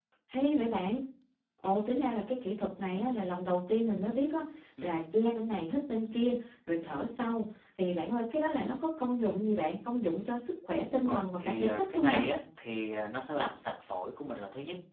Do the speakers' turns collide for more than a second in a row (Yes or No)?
Yes